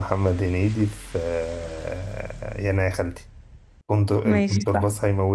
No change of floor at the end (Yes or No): No